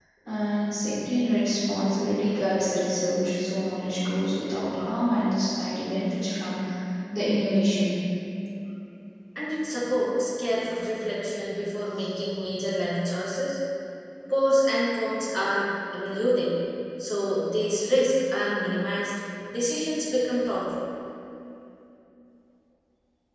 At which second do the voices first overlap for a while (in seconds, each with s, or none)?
none